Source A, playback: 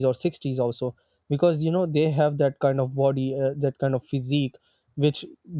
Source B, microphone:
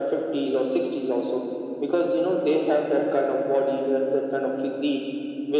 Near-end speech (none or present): none